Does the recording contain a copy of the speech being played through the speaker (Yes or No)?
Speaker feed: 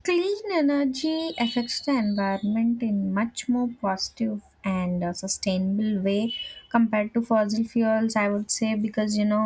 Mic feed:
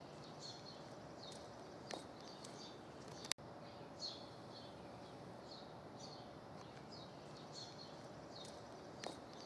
No